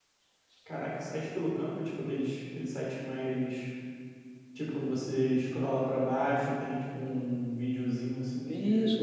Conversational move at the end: taking over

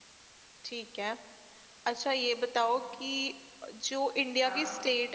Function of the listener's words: listening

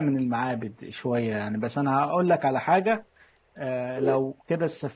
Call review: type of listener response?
listening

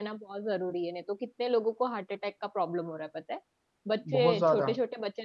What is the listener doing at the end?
listening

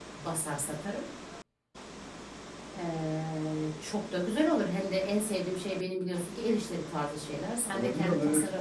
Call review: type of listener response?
taking over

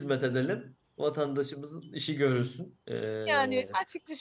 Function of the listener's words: taking over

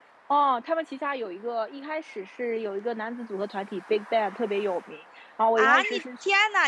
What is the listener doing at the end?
taking over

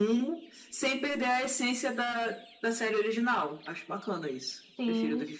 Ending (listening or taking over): taking over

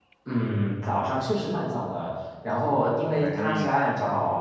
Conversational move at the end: listening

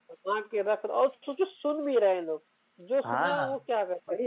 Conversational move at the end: taking over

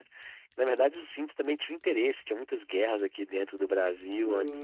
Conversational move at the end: taking over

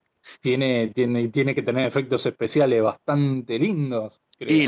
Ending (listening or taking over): taking over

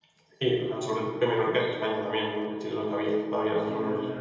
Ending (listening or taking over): taking over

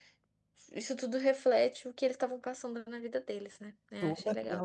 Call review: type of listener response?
taking over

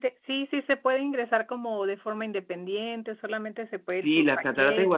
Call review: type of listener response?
taking over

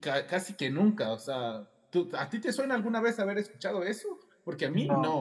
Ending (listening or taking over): listening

